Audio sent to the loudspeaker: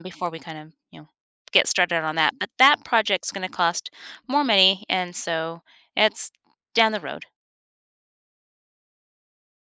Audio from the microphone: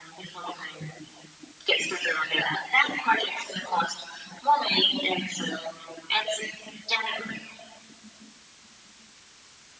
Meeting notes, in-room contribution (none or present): none